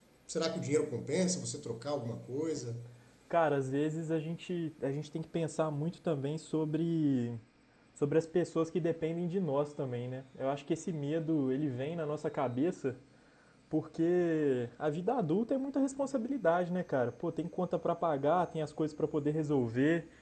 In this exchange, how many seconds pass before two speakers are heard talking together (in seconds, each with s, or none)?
none